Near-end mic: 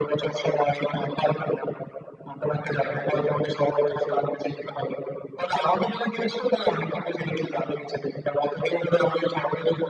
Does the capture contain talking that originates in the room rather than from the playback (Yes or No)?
Yes